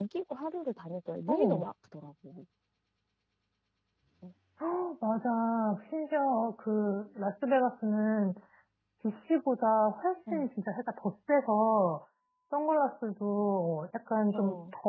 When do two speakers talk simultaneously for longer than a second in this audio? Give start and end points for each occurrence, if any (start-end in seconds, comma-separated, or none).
none